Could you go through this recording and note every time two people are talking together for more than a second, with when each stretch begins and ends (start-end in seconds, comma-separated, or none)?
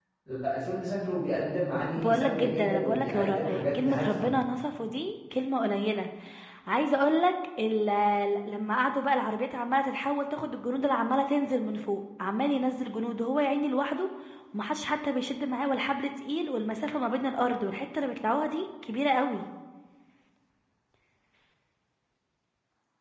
1.9-4.3